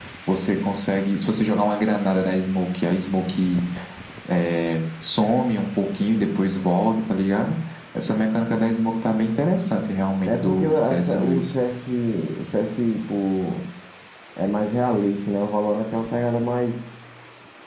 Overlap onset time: 10.2 s

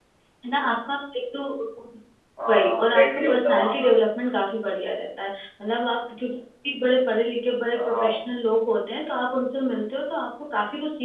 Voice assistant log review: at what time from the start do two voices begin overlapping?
2.5 s

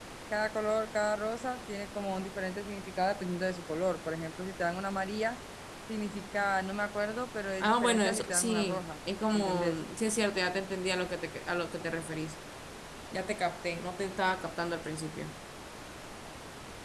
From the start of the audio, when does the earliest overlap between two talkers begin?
7.6 s

